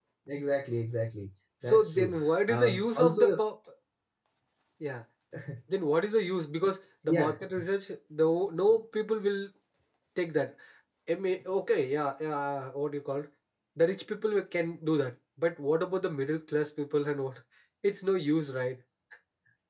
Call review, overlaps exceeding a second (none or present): present